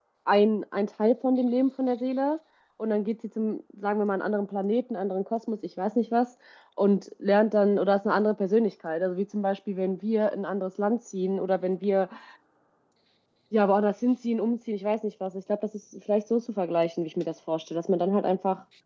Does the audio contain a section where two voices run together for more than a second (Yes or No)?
No